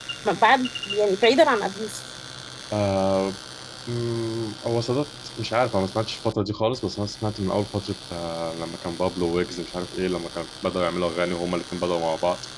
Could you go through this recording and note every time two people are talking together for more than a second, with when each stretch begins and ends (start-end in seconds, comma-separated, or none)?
none